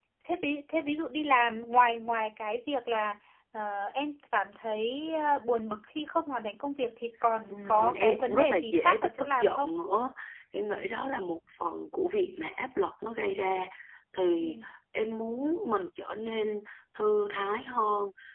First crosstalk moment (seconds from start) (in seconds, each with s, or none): 7.5 s